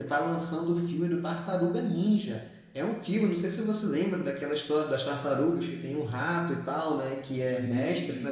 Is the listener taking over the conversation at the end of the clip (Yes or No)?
No